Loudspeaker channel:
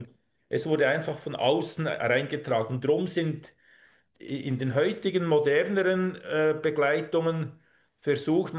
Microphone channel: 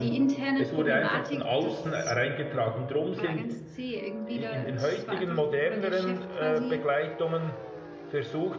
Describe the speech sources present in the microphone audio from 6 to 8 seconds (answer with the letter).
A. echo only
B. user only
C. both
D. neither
C